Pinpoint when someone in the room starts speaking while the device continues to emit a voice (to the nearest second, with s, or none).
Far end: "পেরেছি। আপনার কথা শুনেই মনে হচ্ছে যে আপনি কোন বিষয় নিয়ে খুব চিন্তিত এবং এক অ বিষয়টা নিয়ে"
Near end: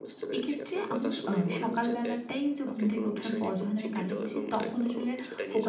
0 s